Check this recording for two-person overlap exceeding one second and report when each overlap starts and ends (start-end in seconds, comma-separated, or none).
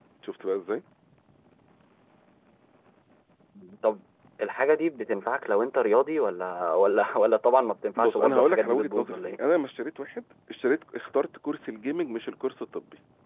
8.0-9.4